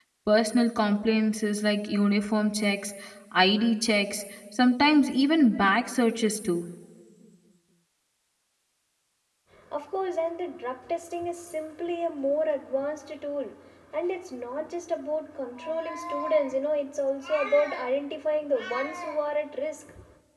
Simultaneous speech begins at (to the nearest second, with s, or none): none